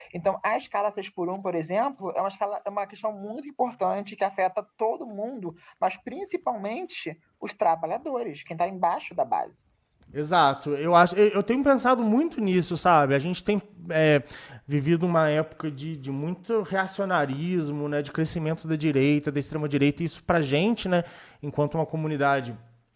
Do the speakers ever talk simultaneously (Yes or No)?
No